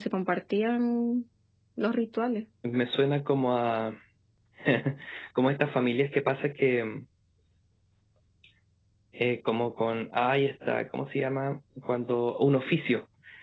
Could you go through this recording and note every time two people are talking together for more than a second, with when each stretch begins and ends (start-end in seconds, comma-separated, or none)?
none